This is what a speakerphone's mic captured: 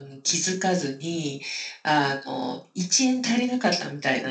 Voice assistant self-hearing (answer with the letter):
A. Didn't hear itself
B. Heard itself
B